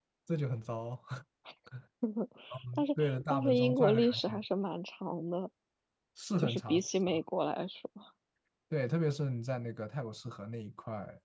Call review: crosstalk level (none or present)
present